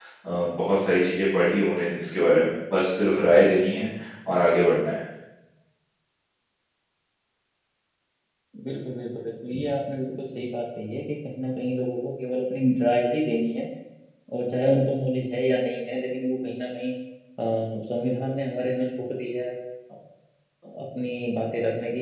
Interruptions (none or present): none